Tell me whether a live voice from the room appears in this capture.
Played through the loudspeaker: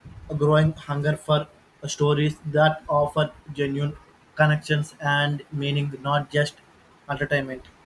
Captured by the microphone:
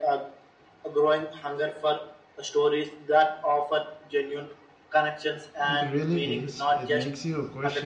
Yes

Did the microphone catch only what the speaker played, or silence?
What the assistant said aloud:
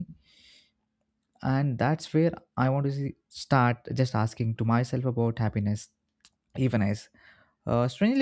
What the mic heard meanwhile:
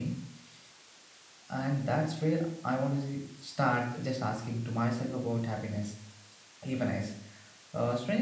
Yes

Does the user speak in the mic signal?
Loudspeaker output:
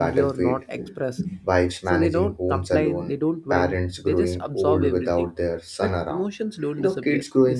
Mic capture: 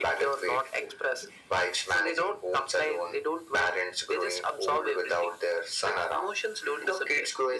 No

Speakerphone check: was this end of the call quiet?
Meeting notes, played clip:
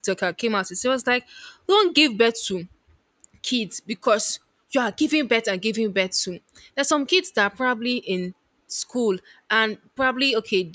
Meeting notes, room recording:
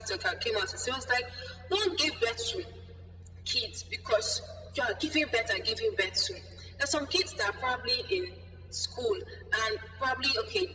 Yes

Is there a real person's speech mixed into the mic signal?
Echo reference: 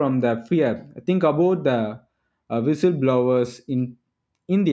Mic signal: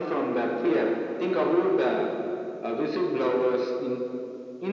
No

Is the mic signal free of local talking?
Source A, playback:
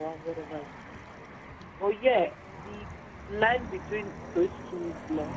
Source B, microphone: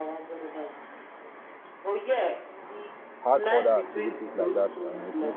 No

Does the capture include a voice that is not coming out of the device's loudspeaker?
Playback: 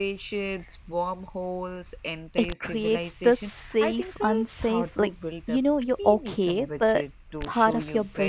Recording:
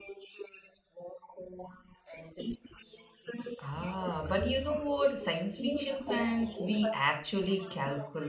Yes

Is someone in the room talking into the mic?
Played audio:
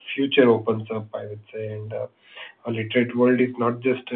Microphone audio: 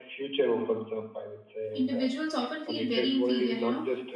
Yes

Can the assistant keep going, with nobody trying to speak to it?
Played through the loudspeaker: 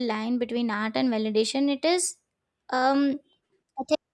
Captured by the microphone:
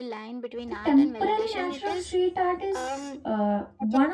No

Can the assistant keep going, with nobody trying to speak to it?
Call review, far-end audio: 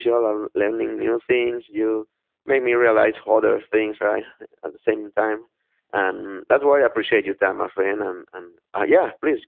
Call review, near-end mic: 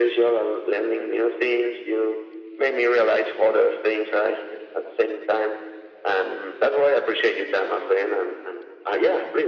Yes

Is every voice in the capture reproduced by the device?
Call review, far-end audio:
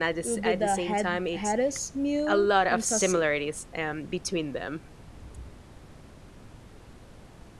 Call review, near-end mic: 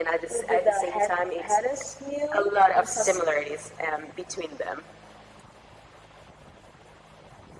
Yes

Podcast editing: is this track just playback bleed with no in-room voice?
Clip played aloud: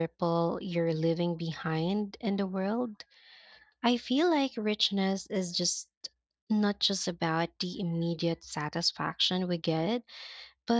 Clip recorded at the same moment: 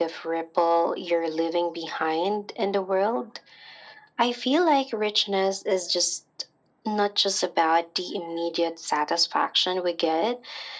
Yes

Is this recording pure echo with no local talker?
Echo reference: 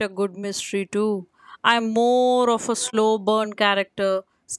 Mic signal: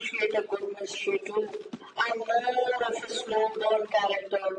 Yes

